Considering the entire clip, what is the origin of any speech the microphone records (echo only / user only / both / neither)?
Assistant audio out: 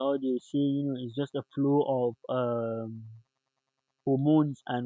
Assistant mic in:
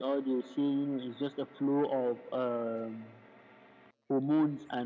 echo only